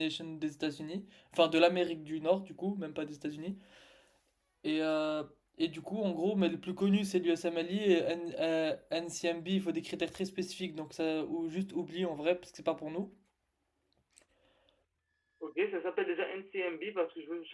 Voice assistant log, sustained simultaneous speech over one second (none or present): none